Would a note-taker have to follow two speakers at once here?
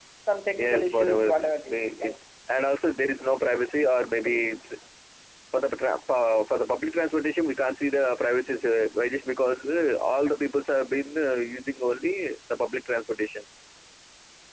Yes, from 0.6 s

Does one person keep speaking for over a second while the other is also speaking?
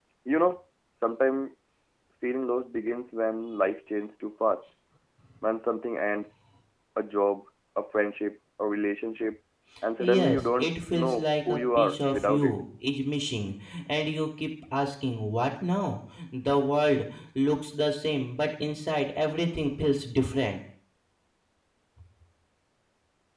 Yes, from 10.0 s

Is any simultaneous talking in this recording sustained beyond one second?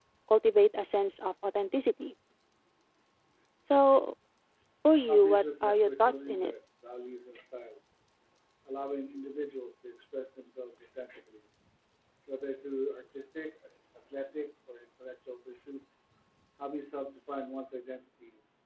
Yes, from 5.1 s

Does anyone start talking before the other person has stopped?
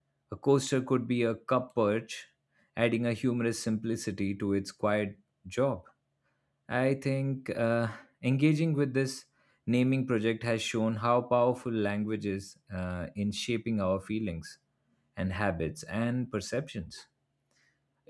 No

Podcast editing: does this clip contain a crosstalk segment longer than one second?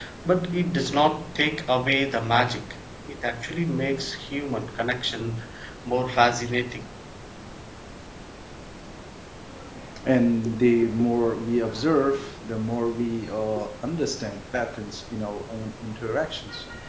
No

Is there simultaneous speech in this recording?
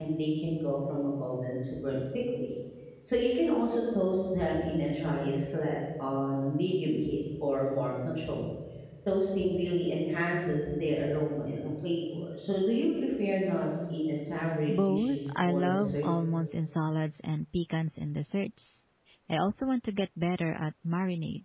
Yes, from 14.7 s

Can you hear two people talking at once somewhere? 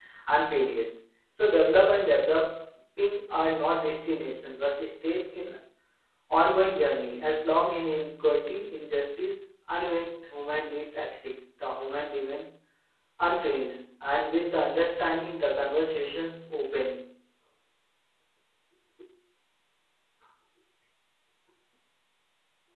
No

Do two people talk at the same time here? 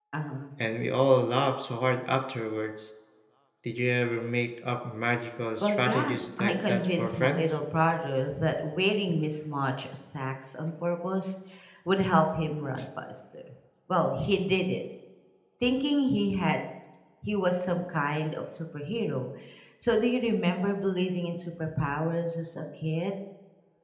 Yes, from 5.6 s

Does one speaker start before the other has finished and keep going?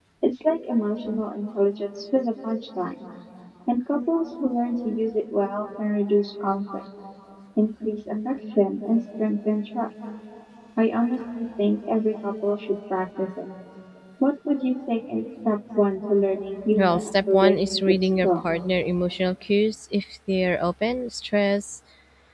Yes, from 16.8 s

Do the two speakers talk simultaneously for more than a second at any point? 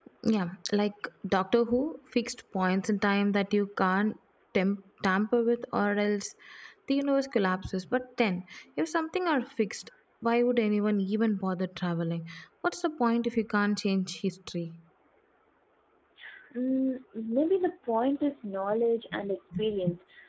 No

